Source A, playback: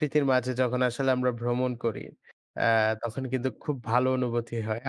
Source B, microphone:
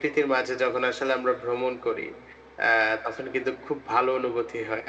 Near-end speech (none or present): none